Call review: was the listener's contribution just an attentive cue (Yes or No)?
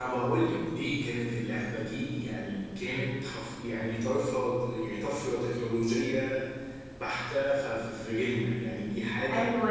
No